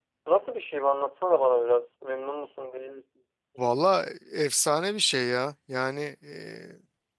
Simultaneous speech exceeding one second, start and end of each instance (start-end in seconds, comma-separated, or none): none